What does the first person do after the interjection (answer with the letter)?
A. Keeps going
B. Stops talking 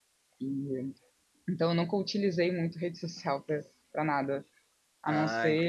B